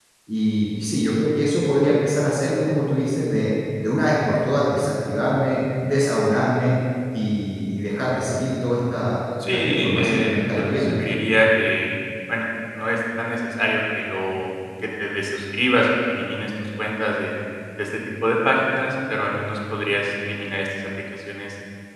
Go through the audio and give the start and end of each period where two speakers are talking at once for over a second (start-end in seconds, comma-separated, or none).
9.5-11.0